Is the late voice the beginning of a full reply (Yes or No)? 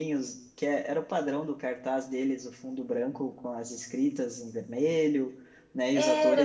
No